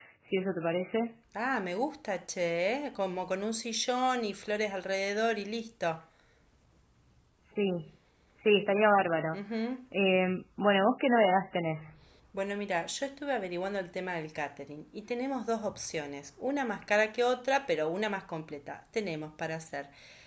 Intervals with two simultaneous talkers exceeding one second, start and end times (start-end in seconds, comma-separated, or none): none